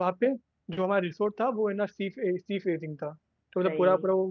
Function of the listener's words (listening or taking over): listening